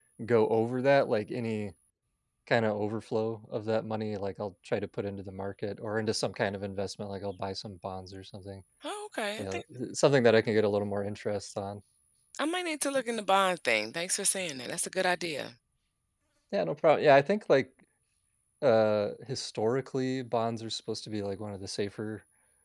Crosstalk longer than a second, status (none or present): none